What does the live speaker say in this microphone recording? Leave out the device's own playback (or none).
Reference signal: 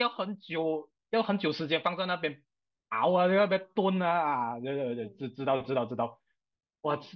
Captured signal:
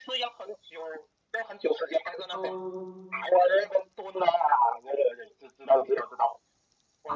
哦，